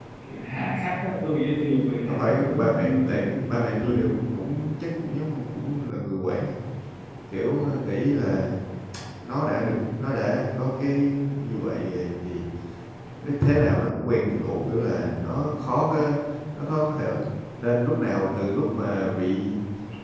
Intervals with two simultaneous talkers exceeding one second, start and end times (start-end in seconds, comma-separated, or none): 2.1-4.1